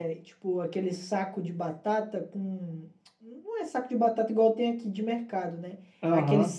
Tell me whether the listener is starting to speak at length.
No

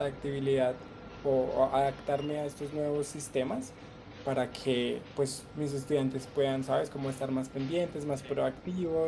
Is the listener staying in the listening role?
Yes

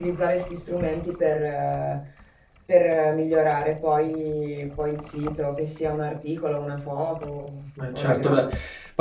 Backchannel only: No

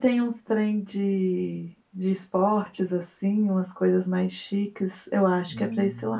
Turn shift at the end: No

